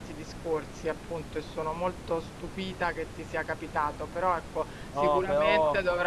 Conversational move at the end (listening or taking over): listening